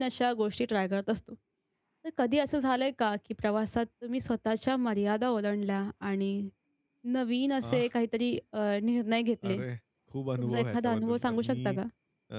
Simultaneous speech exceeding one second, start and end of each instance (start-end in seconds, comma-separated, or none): 10.4-11.8